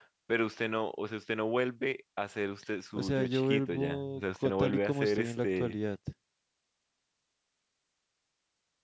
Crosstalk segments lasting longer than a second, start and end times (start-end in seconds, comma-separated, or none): 2.9-5.8